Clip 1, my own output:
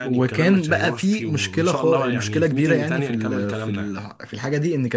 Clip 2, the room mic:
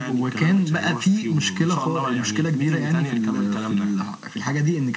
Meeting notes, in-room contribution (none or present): none